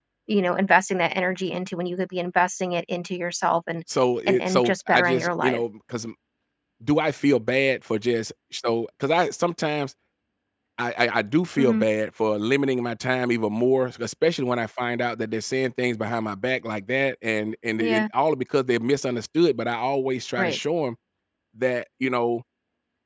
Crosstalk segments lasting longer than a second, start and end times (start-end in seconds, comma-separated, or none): 4.3-5.6